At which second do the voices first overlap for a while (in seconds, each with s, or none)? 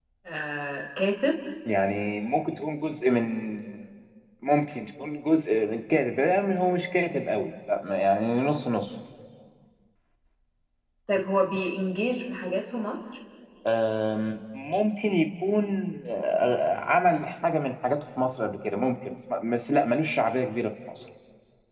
none